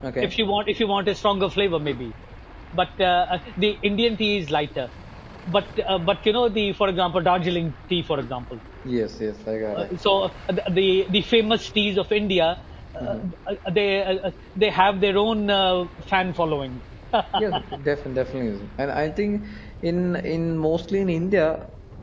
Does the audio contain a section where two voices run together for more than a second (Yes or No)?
No